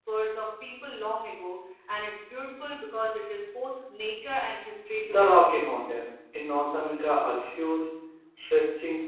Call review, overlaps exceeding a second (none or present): none